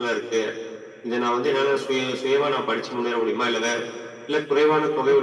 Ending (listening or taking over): taking over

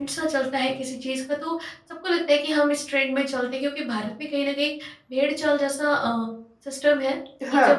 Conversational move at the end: listening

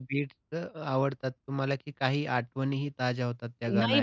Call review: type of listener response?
taking over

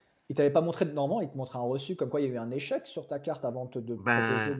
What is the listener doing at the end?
taking over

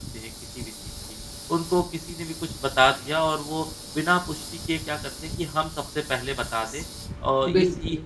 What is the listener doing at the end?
listening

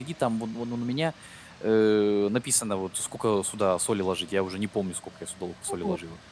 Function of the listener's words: taking over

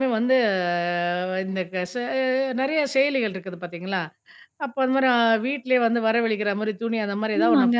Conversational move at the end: taking over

